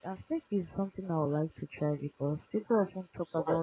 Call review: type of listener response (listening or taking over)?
listening